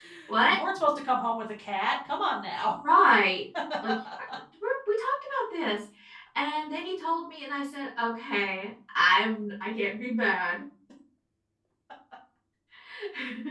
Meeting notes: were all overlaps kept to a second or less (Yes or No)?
Yes